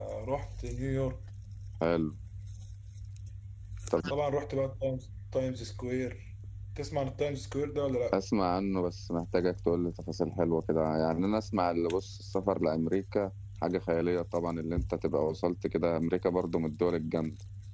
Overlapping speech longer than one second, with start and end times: none

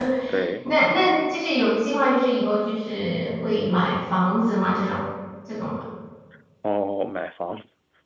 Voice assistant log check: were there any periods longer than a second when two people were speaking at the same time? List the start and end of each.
none

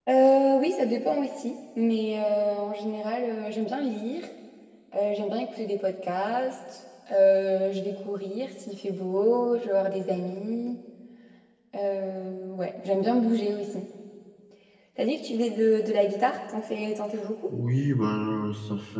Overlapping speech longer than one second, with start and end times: none

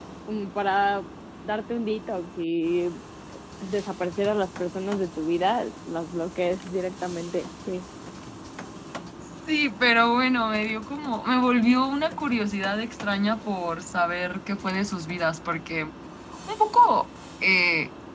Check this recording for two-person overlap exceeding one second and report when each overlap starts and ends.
none

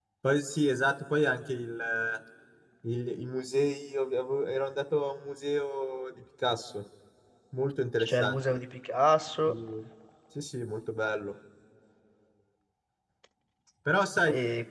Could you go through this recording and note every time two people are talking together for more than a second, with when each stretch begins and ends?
none

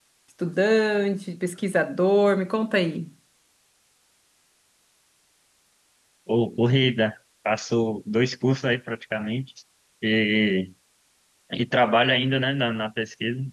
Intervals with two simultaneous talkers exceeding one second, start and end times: none

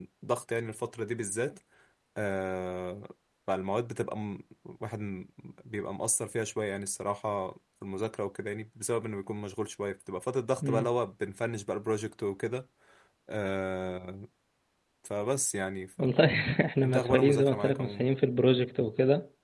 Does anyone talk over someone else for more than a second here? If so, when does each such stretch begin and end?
16.8-18.1

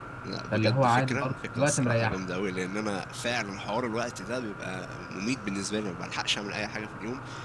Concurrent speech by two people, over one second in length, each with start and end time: 0.5-2.2

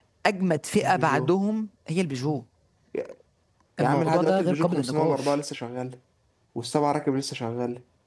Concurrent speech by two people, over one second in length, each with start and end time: 3.8-5.3

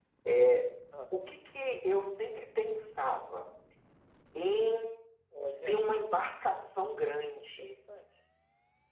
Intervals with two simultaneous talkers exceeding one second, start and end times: none

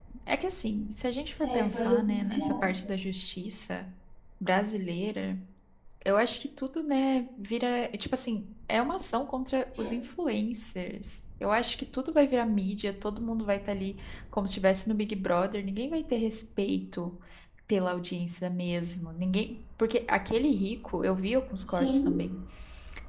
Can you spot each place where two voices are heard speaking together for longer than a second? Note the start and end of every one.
1.3-2.6

